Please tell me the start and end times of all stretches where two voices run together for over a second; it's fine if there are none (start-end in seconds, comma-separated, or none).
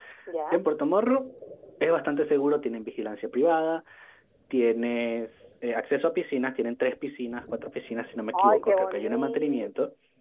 8.3-9.7